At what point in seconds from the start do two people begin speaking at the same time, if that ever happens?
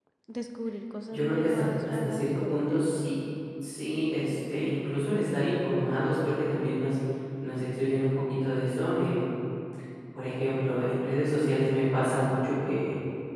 1.1 s

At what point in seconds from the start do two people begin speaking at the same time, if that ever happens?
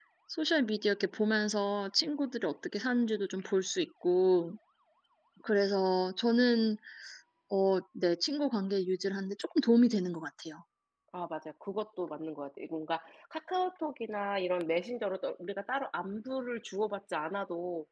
none

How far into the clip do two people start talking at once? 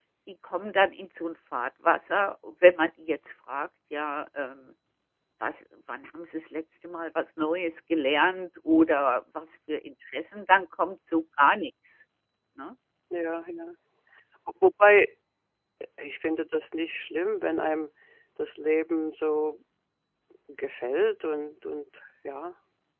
none

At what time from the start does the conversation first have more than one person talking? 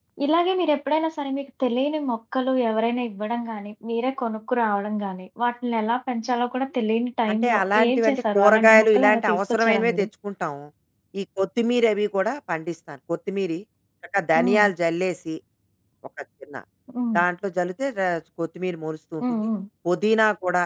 7.3 s

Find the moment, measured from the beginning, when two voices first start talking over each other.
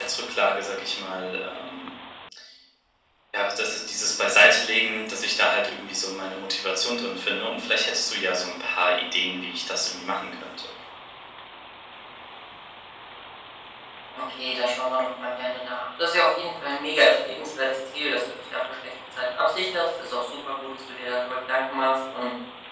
none

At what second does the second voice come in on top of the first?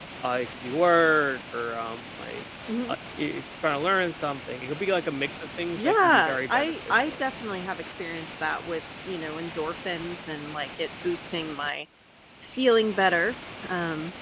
5.8 s

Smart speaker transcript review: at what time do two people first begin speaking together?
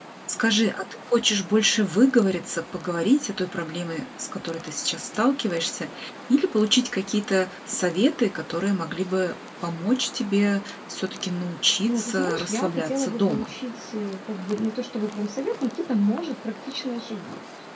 11.8 s

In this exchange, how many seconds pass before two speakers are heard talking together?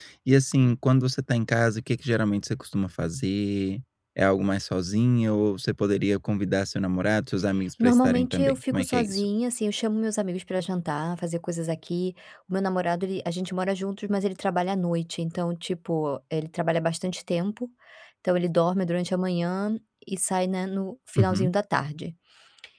7.8 s

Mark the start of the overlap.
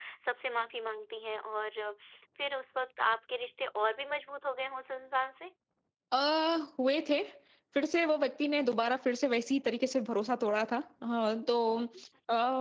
none

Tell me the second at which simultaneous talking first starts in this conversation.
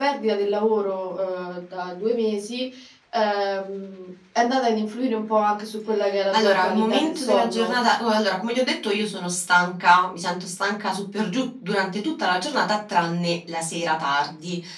6.3 s

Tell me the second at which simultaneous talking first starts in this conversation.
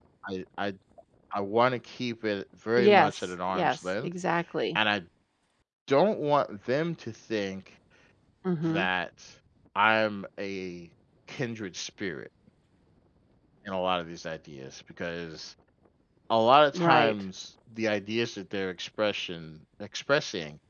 2.8 s

